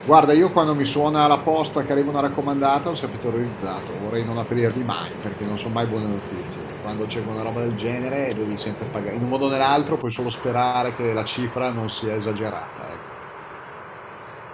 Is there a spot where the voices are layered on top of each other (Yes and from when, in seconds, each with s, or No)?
No